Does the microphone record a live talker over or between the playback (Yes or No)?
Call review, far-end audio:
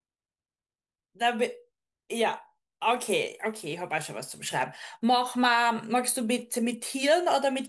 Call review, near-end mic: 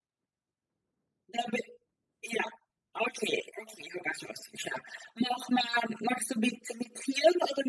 No